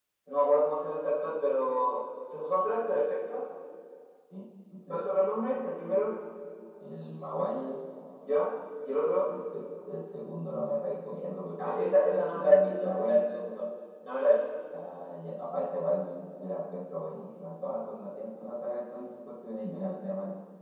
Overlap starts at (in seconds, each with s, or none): 11.6 s